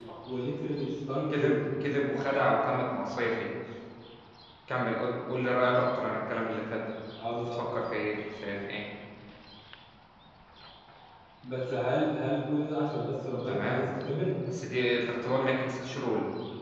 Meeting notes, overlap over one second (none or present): none